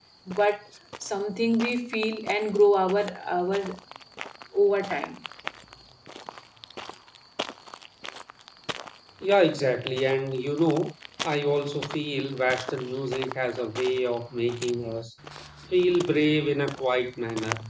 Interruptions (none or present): none